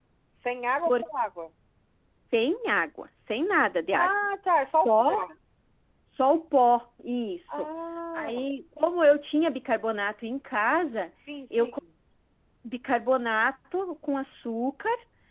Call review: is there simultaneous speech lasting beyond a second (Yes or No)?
No